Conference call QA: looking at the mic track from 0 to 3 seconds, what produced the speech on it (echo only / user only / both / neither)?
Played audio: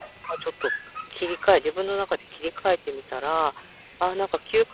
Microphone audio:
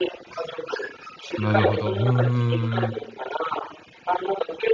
both